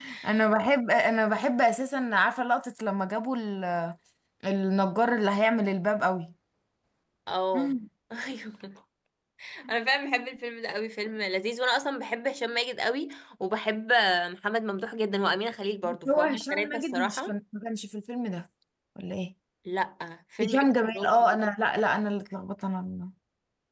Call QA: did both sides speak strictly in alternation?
No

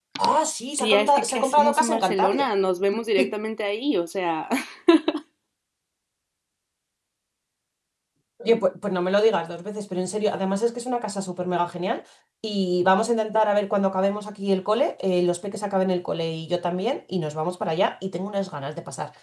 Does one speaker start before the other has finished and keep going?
Yes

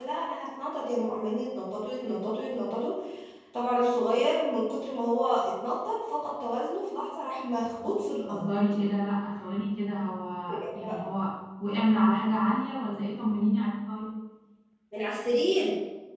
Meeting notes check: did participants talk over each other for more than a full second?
No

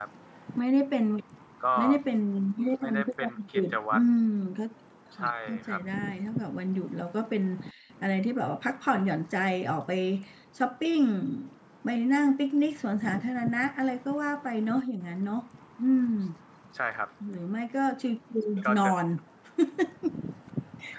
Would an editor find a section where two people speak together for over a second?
Yes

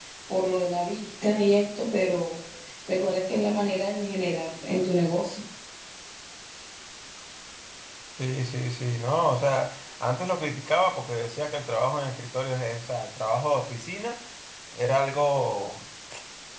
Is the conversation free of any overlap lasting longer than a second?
Yes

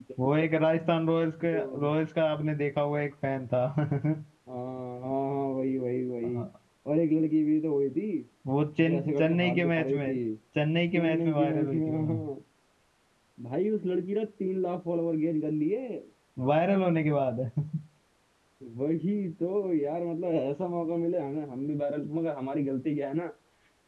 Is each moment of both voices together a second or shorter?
No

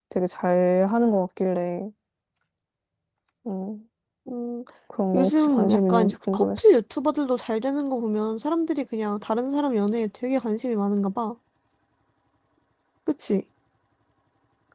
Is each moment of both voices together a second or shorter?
No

